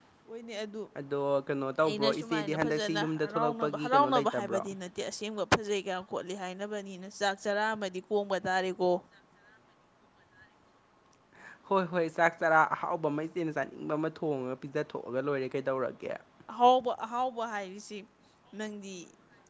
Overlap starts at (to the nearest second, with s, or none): 2 s